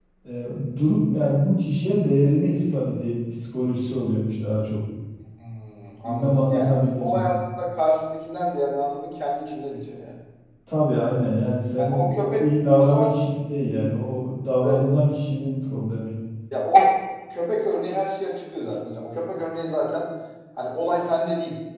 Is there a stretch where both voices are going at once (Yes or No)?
Yes